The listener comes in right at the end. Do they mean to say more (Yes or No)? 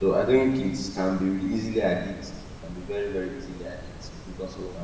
No